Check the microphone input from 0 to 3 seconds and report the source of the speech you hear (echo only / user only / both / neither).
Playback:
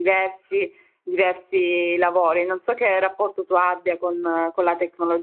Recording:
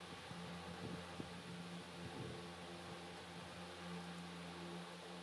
neither